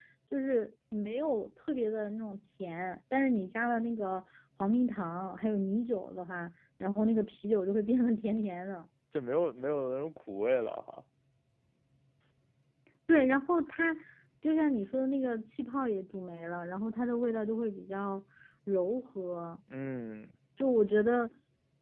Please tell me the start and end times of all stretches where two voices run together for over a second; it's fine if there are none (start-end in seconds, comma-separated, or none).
none